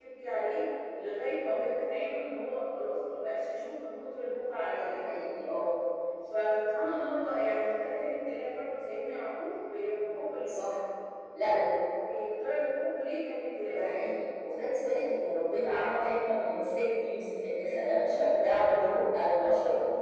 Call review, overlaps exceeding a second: none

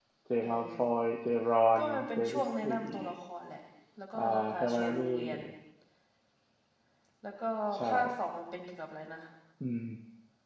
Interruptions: present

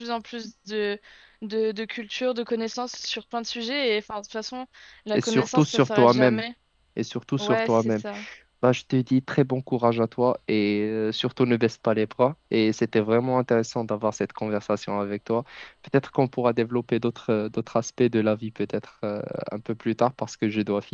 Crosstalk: present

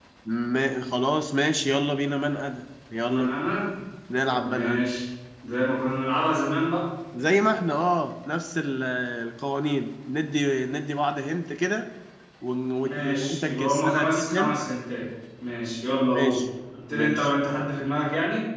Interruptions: present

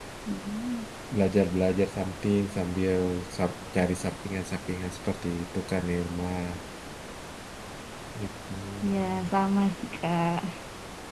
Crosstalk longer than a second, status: none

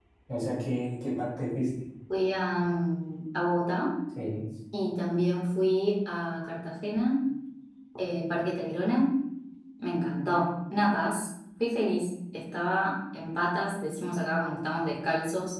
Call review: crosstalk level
none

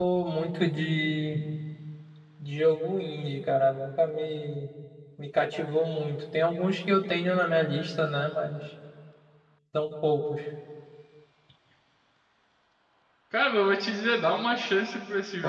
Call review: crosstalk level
none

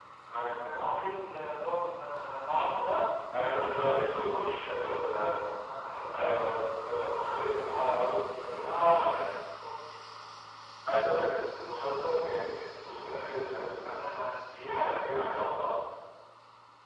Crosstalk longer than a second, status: present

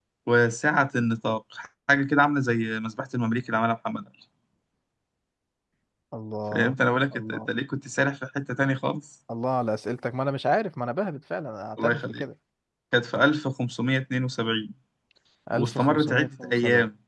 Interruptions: present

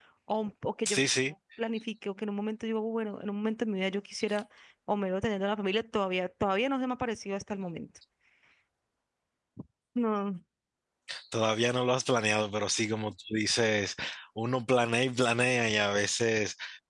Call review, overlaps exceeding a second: none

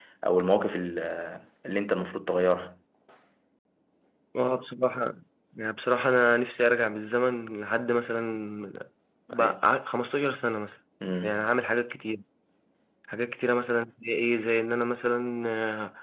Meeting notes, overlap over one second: none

